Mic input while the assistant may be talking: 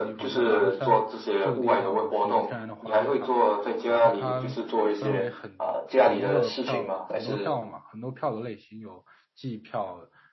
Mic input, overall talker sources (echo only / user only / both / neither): both